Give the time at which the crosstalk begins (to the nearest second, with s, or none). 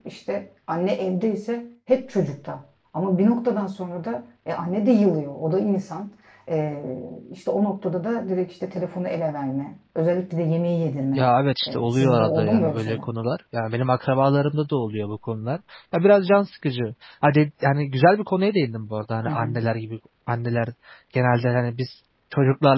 12 s